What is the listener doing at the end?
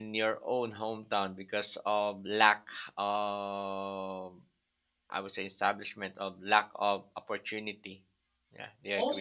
taking over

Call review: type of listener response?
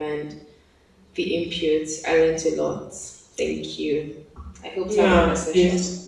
taking over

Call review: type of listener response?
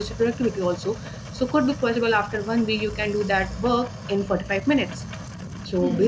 listening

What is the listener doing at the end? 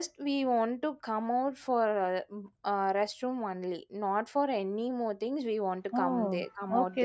taking over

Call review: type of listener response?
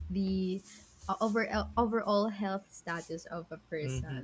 taking over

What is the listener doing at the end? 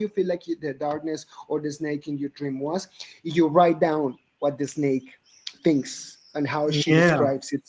listening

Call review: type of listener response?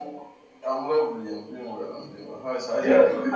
taking over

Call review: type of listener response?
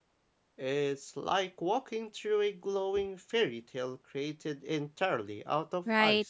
taking over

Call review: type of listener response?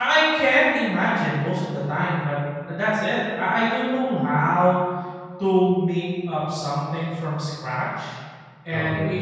listening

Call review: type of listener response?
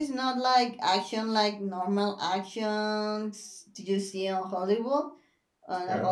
listening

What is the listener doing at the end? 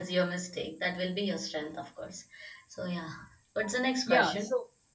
taking over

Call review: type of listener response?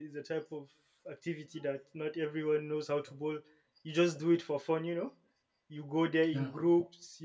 listening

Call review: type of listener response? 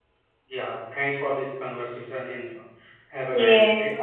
taking over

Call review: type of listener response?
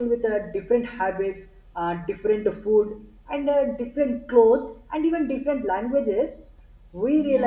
listening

